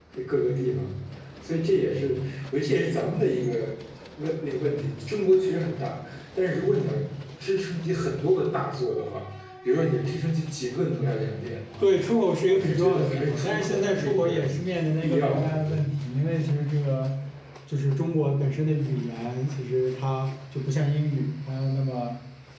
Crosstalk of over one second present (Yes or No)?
Yes